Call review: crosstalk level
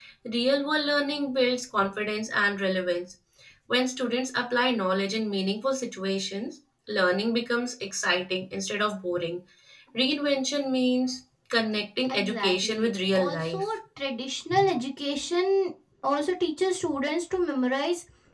present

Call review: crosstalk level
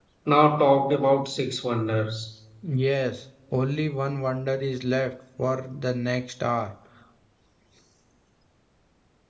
none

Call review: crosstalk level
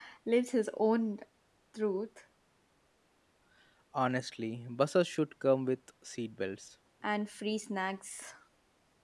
none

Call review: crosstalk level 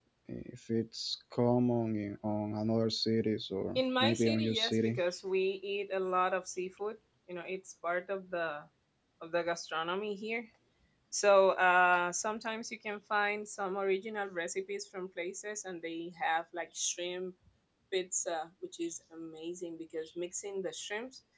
present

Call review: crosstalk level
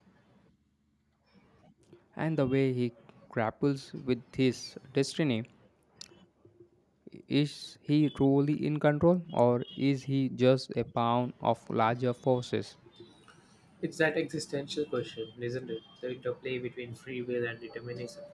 none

